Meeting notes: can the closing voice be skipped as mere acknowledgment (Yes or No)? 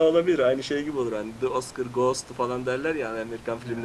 Yes